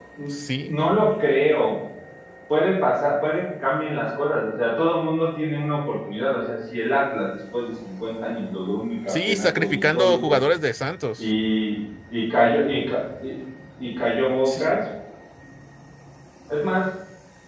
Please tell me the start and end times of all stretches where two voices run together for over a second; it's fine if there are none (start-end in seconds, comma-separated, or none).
9.1-10.4